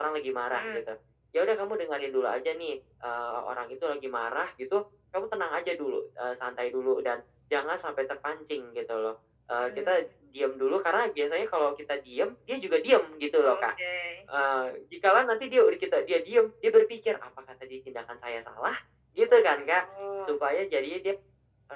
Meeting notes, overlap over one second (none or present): none